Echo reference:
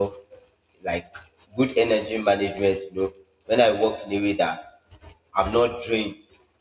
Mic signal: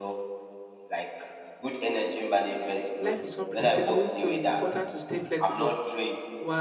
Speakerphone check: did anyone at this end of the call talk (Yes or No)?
Yes